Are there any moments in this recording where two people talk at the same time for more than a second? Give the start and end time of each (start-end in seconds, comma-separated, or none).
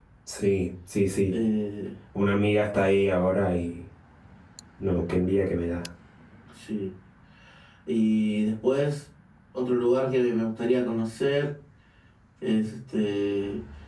none